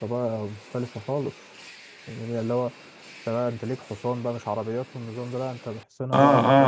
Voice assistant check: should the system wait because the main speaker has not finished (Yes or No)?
No